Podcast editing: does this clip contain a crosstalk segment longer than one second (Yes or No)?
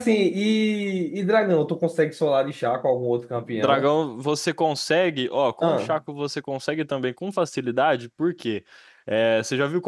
No